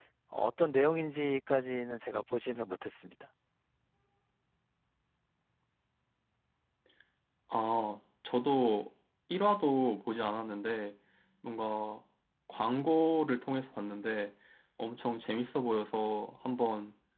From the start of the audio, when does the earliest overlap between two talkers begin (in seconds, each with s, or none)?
none